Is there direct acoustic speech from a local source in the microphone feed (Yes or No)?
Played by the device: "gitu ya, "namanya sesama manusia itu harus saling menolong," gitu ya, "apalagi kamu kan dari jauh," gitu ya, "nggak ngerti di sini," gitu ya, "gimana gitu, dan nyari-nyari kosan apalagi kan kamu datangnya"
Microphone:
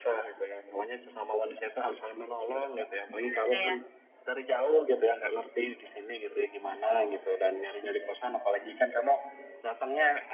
Yes